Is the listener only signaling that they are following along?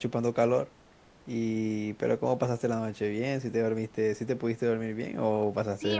No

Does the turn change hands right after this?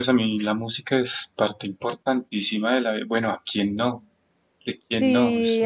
Yes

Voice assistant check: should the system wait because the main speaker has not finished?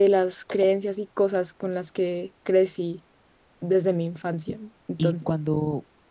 No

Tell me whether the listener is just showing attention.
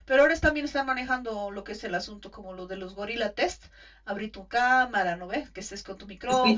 No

